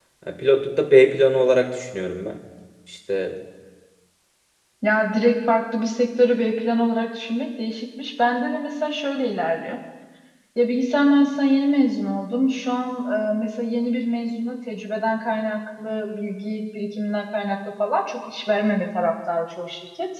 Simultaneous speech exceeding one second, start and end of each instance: none

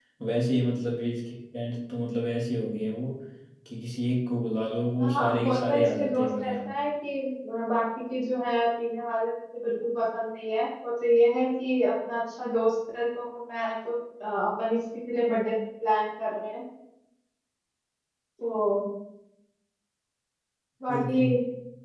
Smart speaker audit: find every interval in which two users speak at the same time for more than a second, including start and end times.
5.0-6.7

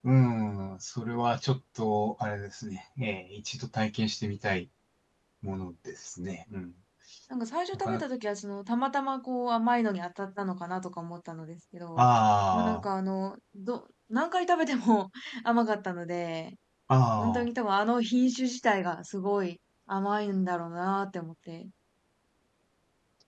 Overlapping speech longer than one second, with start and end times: none

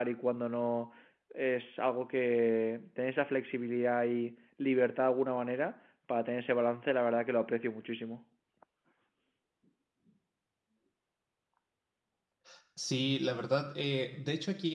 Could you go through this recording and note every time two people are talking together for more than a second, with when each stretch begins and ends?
none

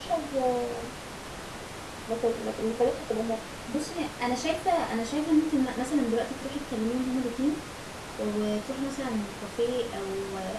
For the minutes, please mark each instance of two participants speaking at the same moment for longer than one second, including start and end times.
none

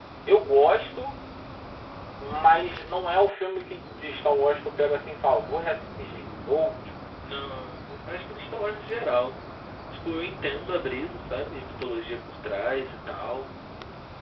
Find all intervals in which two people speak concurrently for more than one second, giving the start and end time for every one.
none

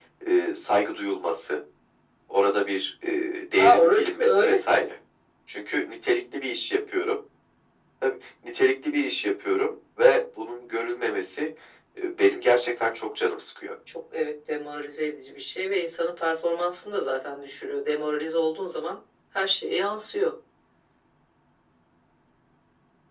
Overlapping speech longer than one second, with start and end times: 3.6-4.8

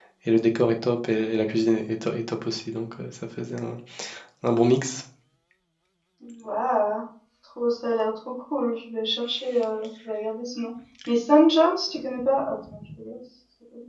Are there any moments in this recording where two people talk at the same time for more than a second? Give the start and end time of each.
none

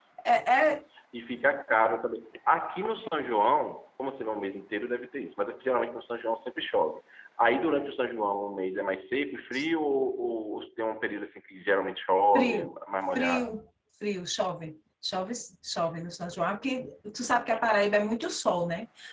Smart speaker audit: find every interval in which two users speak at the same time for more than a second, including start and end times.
none

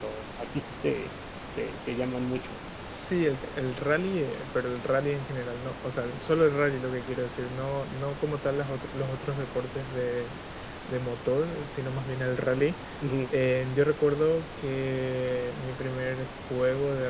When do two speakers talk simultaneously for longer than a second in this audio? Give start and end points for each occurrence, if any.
none

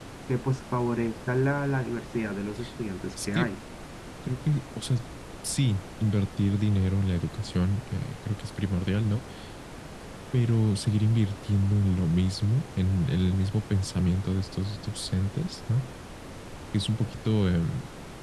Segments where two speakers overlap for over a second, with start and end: none

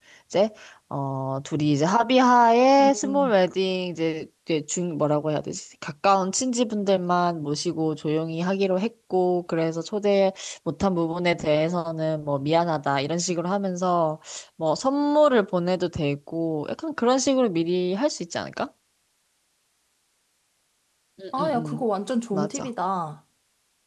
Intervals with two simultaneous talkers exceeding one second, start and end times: none

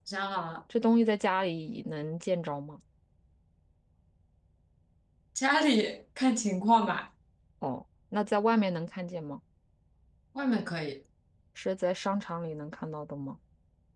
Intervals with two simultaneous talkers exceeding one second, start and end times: none

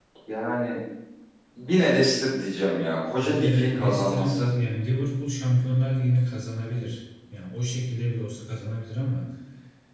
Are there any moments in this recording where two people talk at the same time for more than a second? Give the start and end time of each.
3.2-4.5

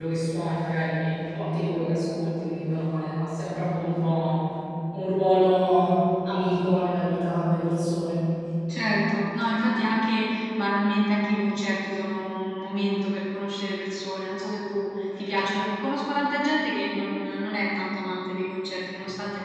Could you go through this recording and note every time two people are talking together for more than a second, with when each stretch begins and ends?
none

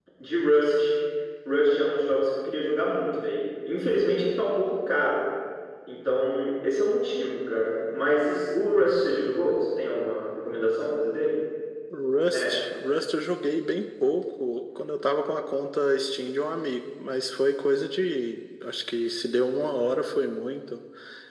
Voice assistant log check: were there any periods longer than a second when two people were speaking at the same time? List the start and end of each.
none

